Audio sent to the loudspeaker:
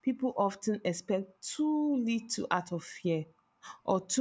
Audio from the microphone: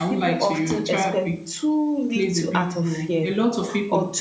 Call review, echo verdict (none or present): present